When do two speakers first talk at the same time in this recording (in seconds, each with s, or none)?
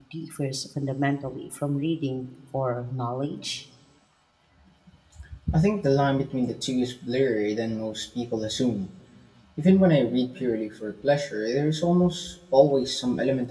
none